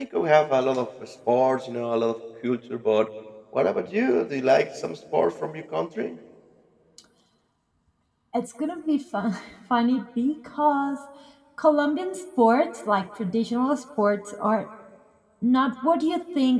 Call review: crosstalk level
none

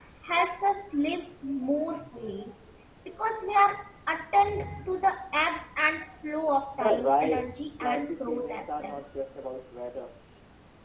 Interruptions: present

